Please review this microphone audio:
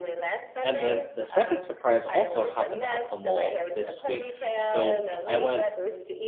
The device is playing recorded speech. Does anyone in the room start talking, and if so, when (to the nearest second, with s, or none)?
1 s